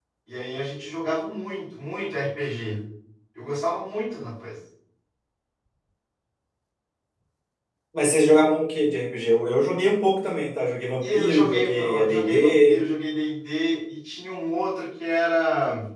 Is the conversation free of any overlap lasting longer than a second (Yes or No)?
No